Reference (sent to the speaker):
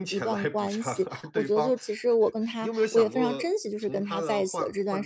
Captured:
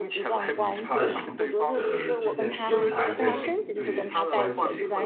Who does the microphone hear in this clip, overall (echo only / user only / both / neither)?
both